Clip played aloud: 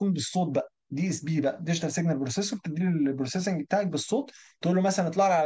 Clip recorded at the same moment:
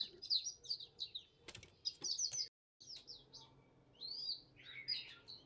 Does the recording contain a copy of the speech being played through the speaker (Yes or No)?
No